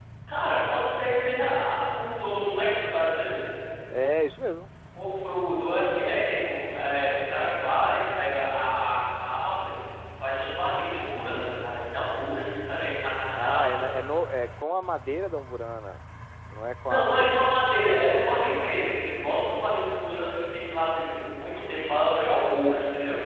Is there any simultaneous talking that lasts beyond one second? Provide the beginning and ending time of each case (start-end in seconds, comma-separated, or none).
16.8-18.3